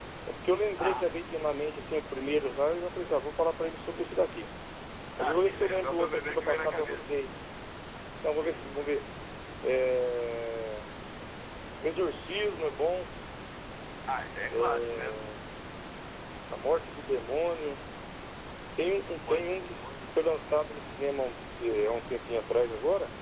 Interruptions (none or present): present